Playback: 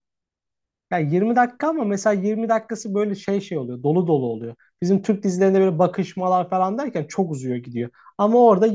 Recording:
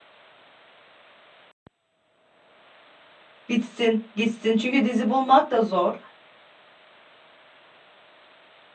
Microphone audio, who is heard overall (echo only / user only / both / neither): user only